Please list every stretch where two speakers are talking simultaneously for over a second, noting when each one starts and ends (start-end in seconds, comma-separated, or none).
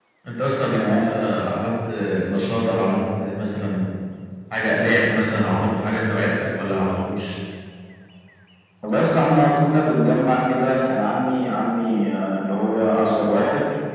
none